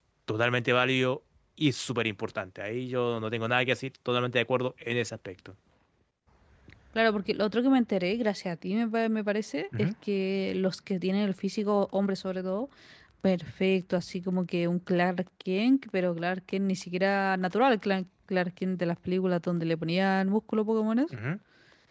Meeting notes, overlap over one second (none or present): none